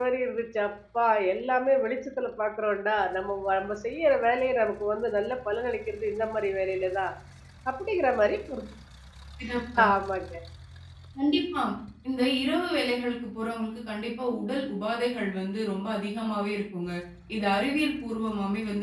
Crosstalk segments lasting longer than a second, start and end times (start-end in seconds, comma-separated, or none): none